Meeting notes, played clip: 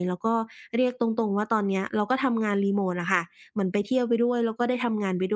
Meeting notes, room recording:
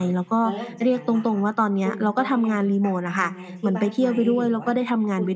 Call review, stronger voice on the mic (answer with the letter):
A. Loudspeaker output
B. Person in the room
A